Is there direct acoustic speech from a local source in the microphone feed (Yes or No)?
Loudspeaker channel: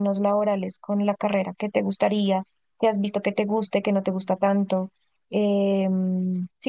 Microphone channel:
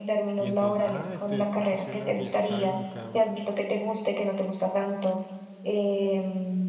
Yes